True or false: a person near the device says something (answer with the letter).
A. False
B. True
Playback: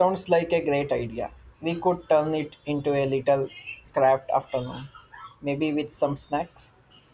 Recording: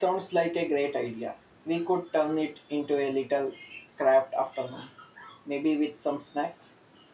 A